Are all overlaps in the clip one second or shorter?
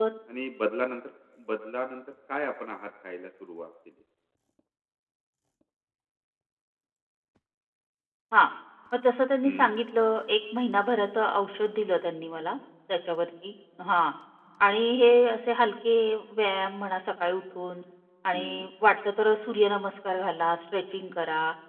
Yes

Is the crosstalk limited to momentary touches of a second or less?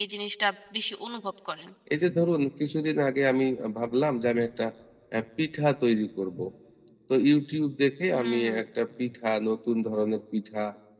Yes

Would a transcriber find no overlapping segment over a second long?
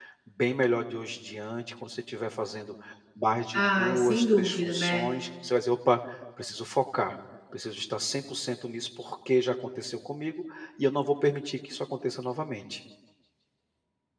No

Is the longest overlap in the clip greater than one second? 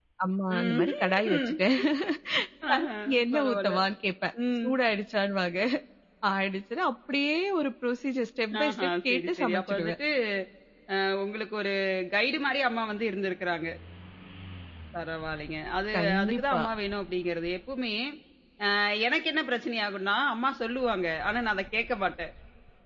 Yes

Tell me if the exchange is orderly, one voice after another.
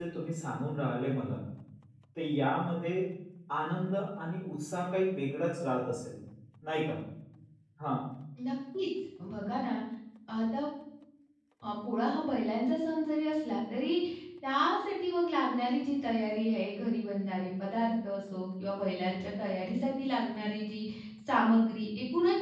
Yes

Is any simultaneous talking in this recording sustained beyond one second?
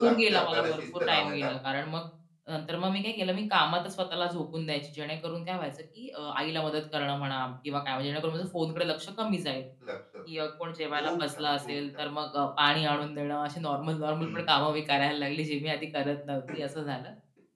Yes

